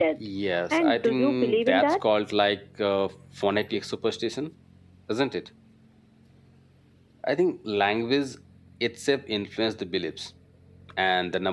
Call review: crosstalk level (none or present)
present